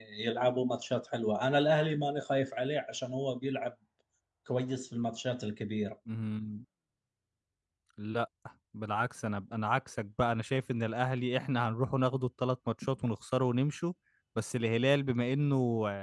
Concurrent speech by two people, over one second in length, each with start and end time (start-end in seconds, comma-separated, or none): none